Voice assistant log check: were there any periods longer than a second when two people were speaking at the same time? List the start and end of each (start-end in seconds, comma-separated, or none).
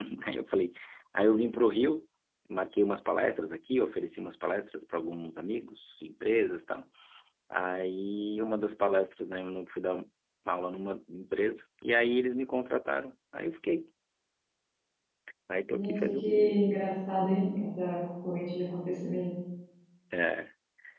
none